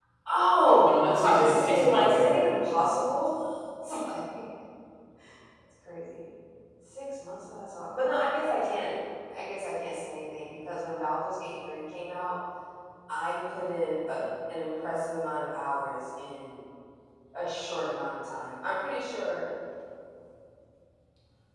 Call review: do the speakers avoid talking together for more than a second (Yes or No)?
No